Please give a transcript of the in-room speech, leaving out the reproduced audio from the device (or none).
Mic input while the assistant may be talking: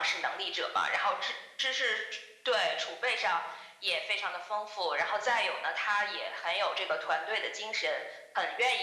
none